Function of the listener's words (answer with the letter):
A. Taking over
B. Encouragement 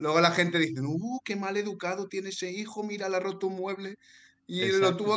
B